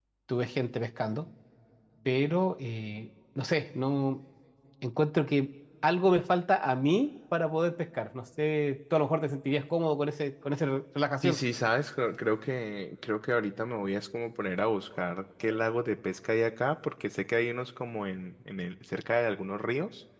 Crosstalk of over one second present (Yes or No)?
No